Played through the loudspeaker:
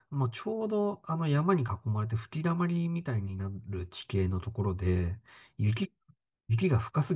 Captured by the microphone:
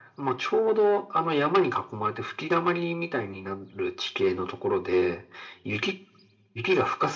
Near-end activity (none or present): none